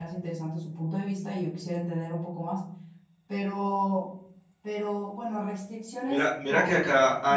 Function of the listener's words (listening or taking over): taking over